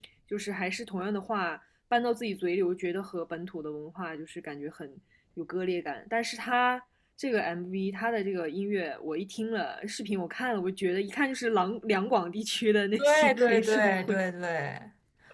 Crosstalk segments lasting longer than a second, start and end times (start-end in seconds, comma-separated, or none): 13.0-14.2